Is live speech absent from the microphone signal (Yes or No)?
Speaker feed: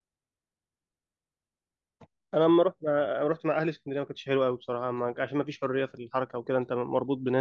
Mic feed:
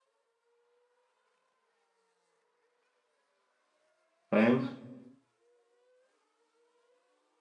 No